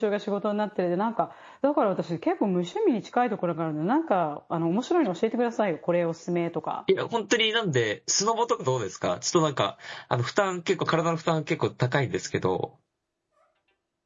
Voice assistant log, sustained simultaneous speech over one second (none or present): none